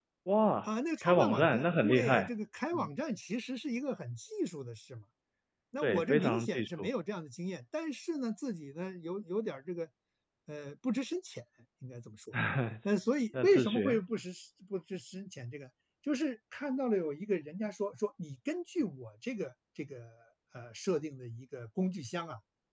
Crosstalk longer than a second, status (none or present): present